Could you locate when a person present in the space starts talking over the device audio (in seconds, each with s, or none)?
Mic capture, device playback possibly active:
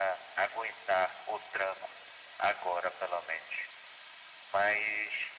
none